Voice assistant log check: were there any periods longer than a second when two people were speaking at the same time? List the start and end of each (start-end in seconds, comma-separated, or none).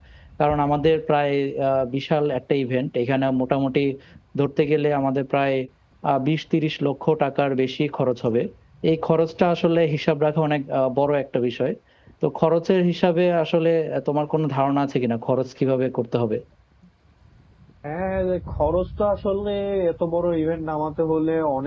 none